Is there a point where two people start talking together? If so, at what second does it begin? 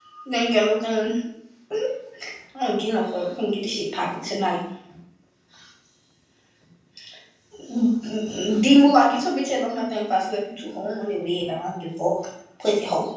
none

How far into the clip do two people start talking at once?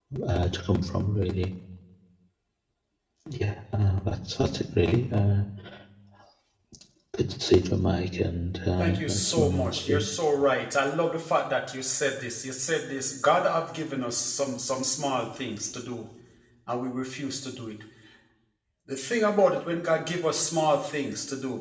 8.8 s

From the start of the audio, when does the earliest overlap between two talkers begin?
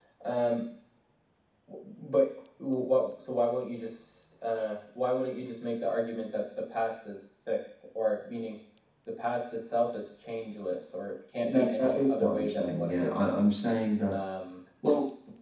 11.4 s

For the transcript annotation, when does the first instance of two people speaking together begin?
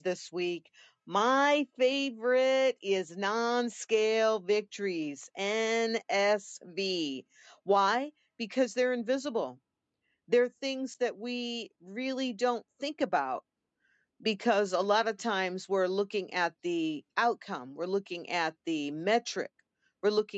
none

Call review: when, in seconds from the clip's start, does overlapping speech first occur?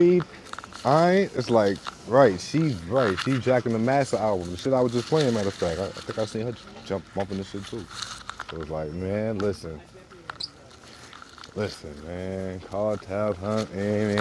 none

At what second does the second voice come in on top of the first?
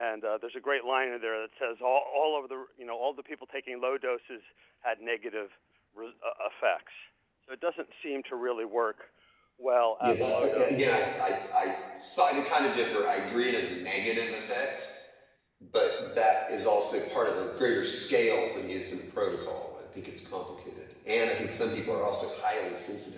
10.0 s

